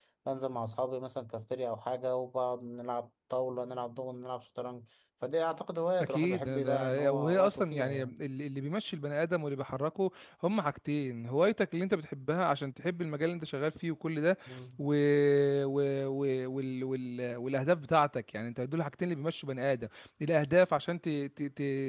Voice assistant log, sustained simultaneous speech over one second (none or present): present